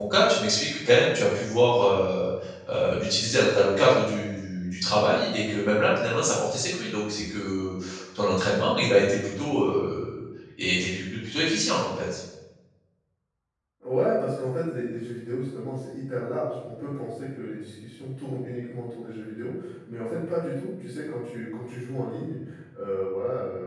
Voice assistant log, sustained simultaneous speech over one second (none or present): none